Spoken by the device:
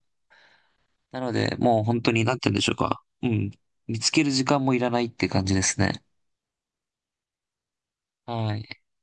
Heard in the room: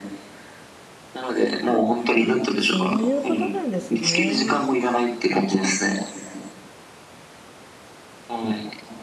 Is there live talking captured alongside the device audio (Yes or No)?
Yes